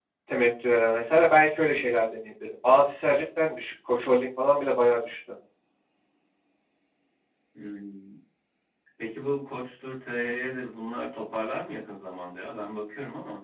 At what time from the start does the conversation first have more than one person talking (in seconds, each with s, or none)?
none